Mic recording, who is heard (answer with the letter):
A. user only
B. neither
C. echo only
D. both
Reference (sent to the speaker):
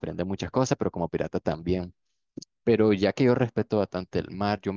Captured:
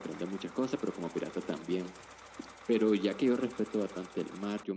C